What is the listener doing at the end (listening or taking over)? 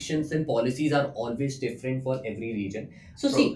listening